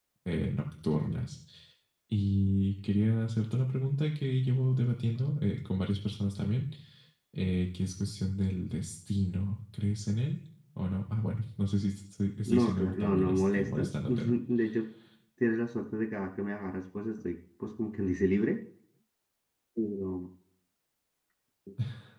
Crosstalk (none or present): present